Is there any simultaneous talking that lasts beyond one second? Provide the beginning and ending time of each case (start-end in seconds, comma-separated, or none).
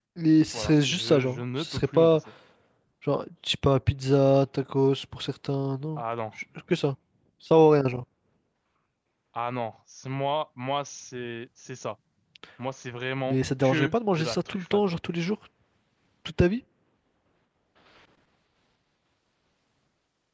0.5-2.2, 13.3-14.8